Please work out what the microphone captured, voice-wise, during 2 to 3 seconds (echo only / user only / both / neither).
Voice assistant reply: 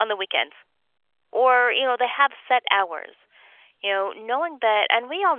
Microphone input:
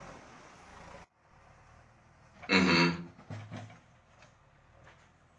user only